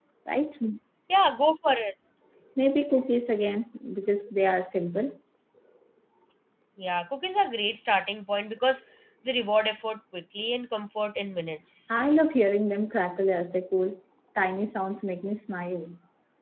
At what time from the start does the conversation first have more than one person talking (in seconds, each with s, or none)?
none